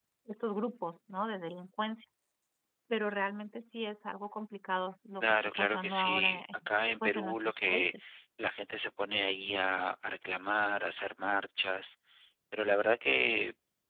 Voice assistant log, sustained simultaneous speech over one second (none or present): present